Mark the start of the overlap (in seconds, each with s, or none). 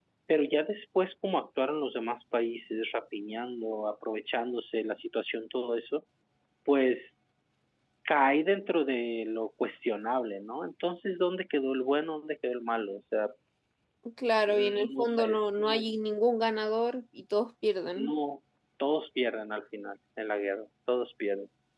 14.5 s